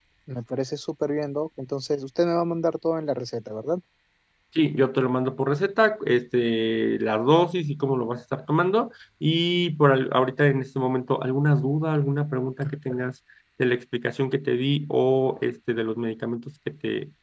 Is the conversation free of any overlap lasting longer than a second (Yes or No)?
Yes